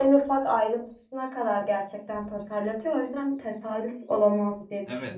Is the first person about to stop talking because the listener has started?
Yes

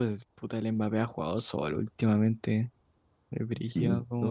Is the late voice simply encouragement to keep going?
No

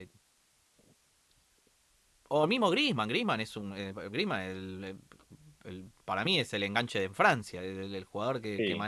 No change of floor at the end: Yes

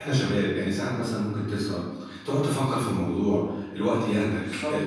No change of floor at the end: No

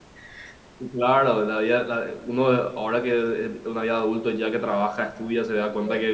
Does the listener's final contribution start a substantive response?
No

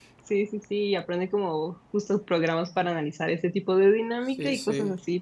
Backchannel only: Yes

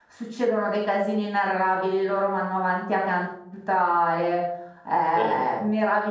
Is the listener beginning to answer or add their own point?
No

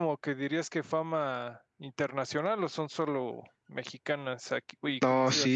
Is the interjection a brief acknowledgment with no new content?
No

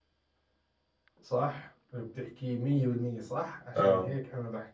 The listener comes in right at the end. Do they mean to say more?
No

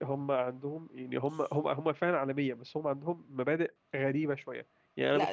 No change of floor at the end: No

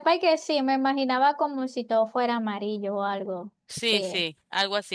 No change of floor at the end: No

